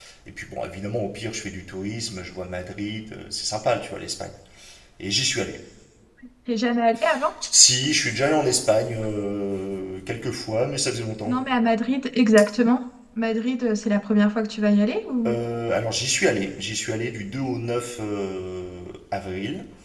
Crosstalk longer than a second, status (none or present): none